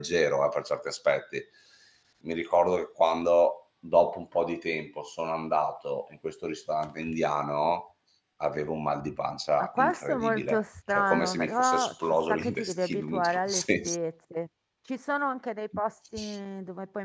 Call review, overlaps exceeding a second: present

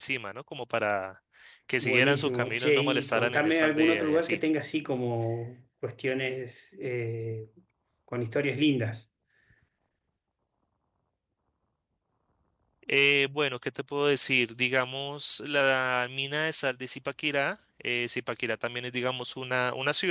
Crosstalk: present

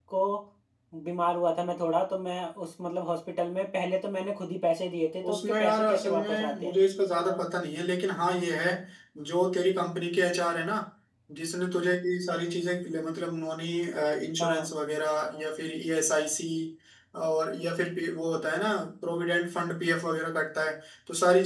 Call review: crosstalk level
present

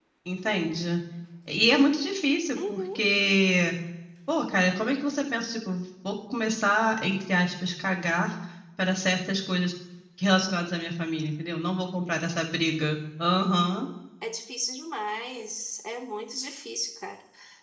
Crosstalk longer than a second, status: none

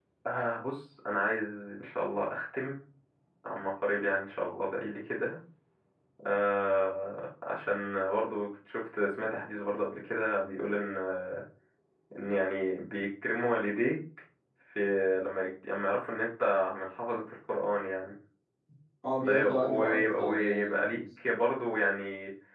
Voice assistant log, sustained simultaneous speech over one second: present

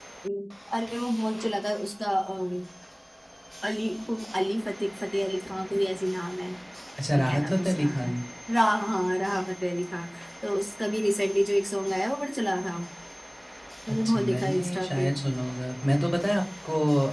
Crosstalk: present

